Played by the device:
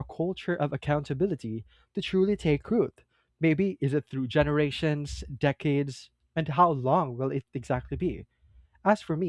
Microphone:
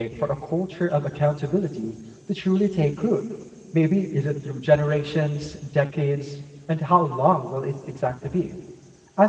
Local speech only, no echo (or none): none